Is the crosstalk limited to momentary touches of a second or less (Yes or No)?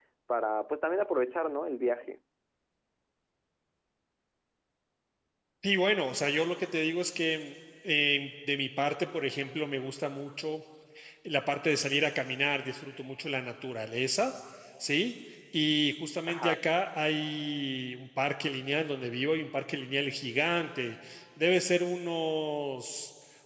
Yes